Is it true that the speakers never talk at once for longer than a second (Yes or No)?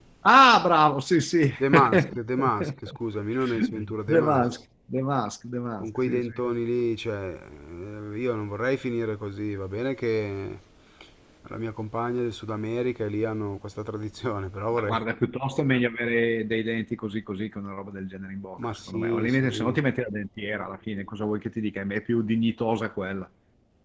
No